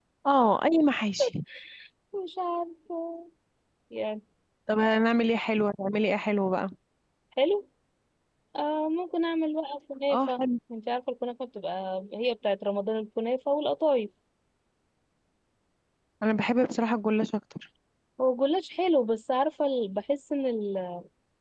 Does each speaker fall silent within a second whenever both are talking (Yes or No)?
Yes